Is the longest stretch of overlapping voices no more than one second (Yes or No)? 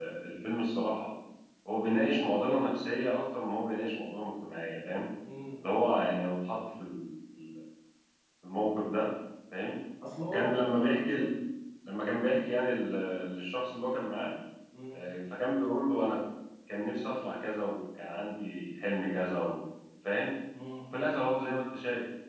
Yes